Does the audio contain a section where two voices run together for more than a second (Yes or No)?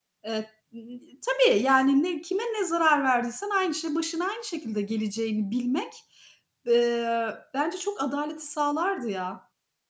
No